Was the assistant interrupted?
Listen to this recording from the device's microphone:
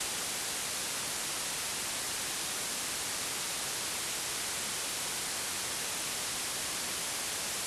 No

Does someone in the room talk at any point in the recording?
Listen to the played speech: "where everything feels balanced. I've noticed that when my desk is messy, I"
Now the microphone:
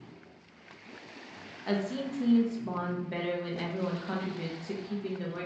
Yes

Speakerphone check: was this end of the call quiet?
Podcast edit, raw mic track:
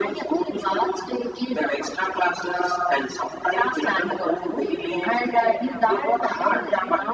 No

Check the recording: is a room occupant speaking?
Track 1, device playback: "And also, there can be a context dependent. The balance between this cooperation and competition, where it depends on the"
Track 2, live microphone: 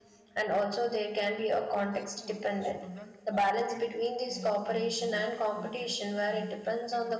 Yes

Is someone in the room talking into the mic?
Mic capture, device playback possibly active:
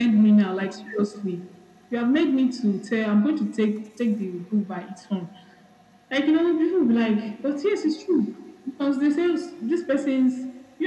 No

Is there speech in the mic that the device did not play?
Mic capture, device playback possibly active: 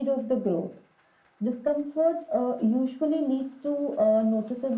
No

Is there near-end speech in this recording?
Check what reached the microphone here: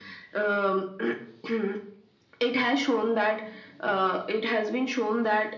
No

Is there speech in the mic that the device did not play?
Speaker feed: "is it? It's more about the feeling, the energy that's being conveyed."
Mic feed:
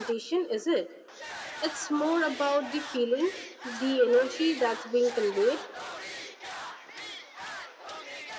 No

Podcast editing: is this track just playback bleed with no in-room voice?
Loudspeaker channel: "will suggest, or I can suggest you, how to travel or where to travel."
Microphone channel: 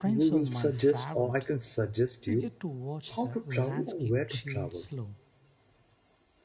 No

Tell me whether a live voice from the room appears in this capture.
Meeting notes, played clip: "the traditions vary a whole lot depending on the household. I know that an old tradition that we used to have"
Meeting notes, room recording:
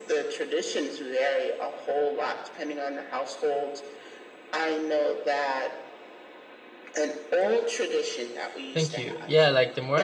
Yes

